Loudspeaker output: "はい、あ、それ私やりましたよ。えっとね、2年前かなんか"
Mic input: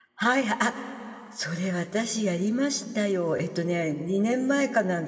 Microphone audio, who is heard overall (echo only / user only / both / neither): echo only